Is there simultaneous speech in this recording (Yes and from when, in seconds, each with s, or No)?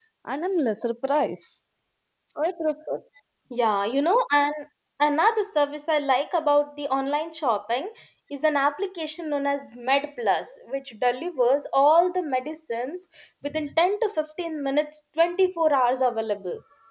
No